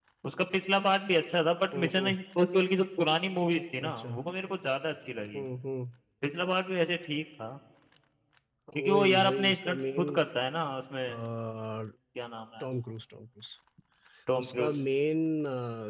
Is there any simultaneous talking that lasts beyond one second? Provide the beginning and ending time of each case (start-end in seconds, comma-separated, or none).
8.7-10.2